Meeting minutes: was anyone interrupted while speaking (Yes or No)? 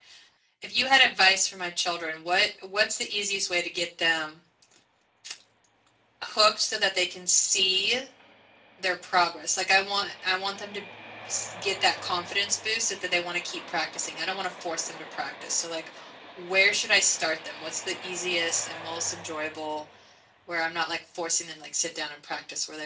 No